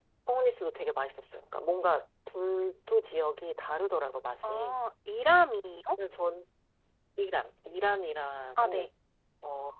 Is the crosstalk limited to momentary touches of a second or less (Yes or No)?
Yes